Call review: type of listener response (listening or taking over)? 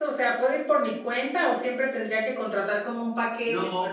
taking over